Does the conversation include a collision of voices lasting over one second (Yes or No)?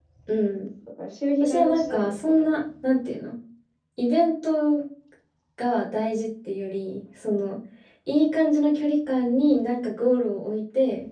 Yes